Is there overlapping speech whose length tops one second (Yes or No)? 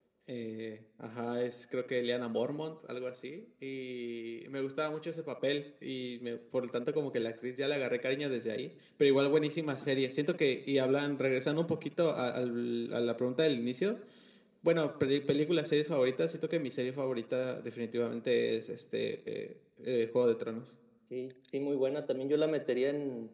No